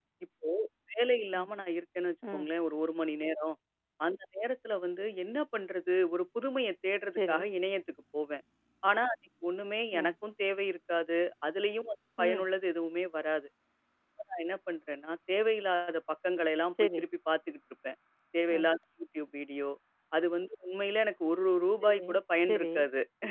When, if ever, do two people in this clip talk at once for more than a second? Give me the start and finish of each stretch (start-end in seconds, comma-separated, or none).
none